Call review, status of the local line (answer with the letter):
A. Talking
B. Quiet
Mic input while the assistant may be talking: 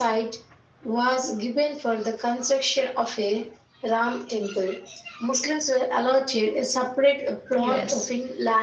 A